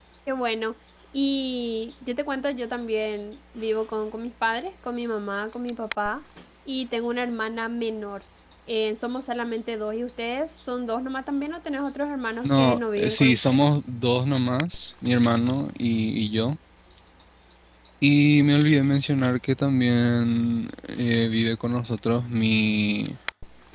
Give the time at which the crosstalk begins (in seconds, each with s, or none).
12.4 s